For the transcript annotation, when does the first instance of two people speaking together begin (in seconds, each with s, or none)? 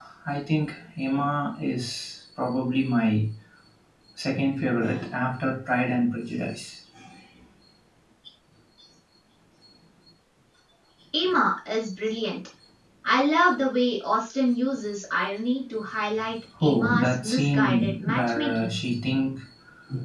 16.6 s